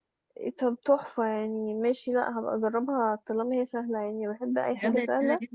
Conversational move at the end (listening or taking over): taking over